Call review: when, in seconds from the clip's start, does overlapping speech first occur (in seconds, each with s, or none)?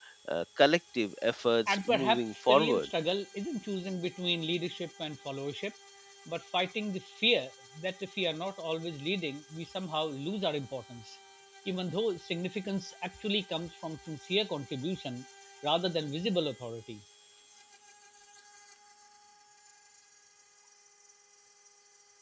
1.7 s